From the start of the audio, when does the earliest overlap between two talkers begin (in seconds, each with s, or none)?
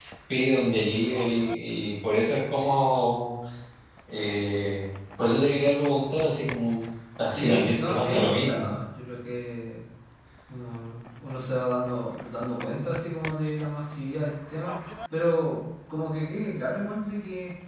7.2 s